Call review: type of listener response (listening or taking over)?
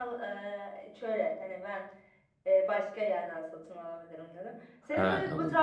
listening